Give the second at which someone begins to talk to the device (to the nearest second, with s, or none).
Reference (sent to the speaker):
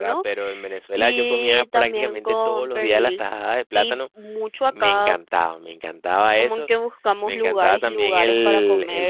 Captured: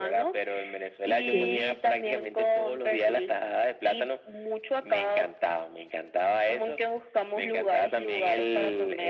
1 s